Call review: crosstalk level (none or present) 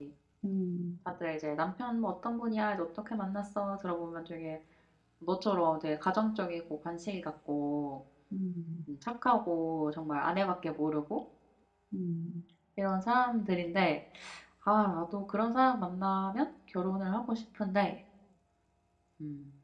none